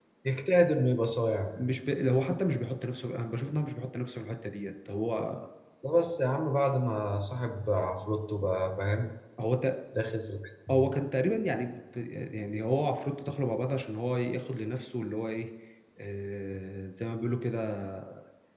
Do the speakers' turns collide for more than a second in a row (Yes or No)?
No